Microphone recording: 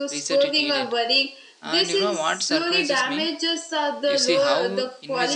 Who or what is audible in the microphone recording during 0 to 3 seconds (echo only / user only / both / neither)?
both